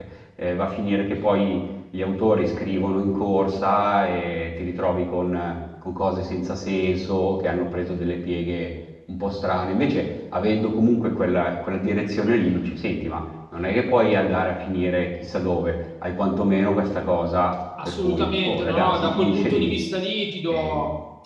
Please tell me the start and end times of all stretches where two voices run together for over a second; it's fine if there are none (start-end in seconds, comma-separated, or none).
17.8-19.7